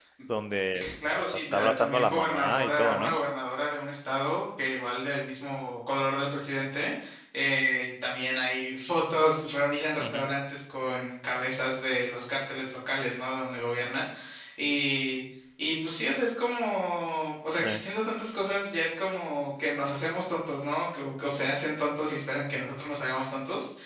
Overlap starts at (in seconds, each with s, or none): 0.7 s